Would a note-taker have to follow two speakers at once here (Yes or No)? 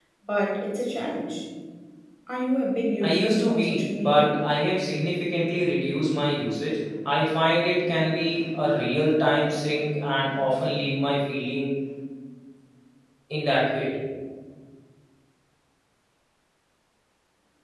Yes